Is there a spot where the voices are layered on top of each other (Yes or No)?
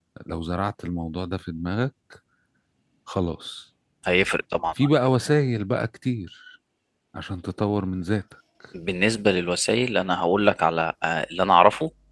No